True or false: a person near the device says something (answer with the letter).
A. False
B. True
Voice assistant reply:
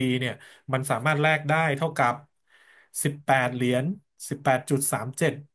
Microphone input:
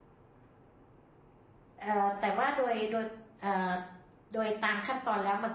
B